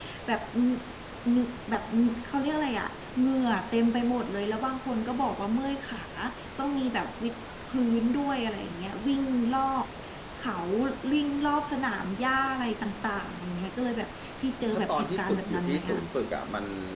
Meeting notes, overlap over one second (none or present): present